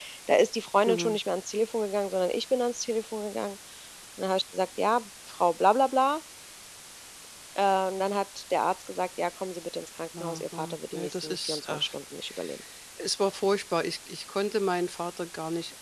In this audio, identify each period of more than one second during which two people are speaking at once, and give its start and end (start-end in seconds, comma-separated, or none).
10.2-11.9